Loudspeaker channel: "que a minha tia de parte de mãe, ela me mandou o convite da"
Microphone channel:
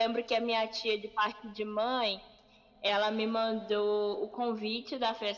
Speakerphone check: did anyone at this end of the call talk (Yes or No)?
No